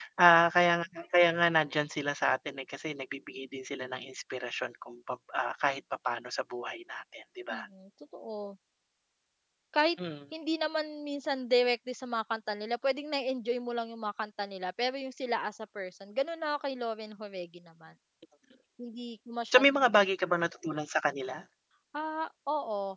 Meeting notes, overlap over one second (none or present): none